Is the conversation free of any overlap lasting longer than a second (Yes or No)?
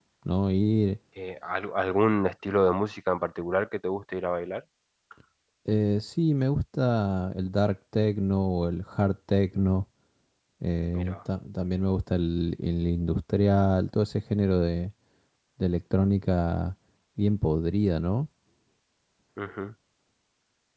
Yes